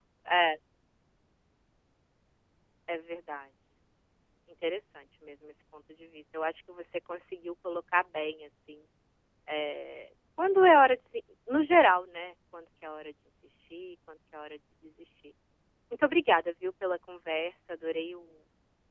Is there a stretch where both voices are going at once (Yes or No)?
No